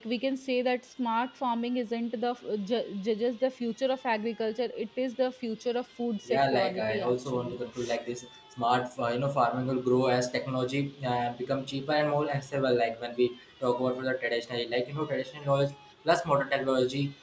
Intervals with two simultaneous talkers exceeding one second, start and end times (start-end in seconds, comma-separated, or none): 6.3-7.6